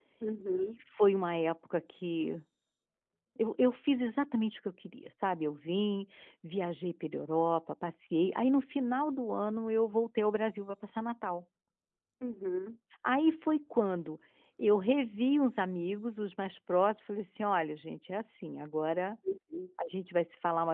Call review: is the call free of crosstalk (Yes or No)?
Yes